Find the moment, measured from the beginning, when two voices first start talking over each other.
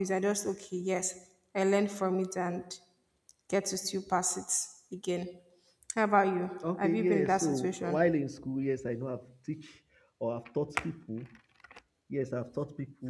6.6 s

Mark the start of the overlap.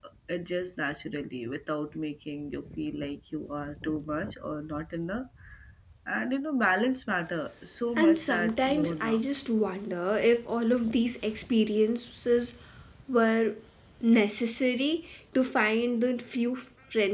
8.0 s

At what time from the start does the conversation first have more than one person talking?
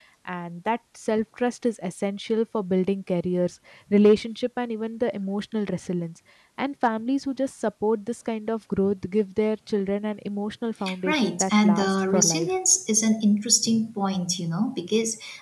10.9 s

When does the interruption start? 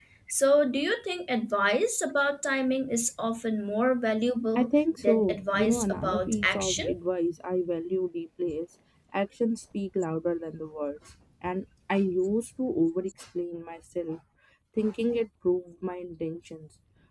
4.5 s

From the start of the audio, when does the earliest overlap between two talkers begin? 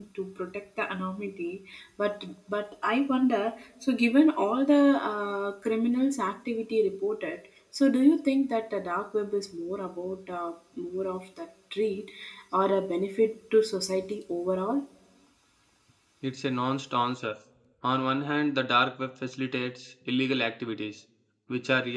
none

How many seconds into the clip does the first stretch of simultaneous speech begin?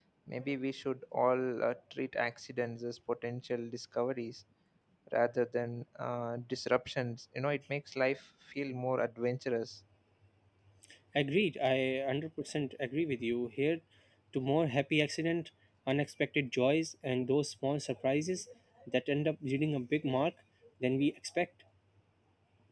none

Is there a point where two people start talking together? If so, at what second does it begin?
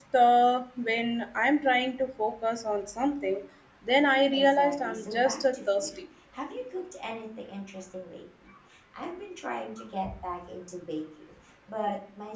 4.3 s

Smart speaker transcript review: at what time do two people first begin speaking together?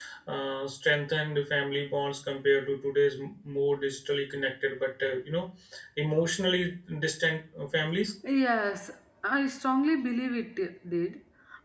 none

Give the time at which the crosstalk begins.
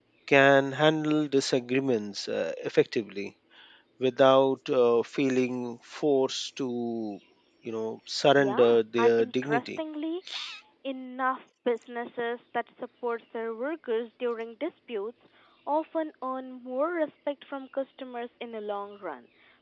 8.4 s

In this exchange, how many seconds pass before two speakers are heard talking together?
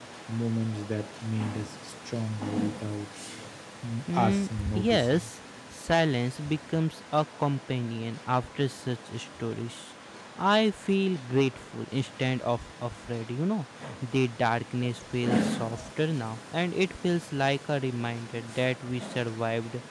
4.1 s

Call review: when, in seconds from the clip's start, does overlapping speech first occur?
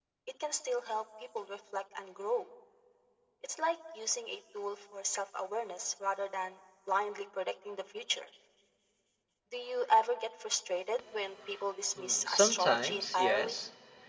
12.0 s

